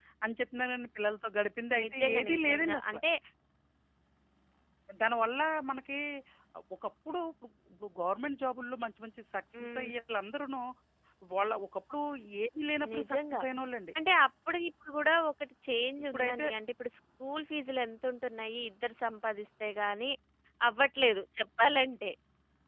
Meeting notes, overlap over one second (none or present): present